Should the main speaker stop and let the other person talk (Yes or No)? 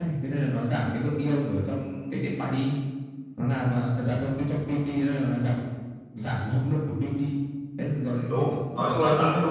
Yes